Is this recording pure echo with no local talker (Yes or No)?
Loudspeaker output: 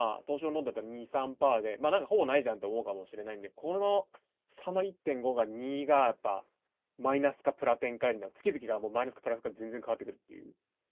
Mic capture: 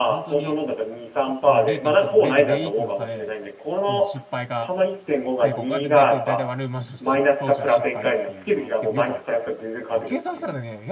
No